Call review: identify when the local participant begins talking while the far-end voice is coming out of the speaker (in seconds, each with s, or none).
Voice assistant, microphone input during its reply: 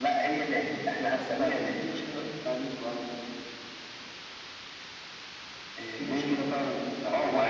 none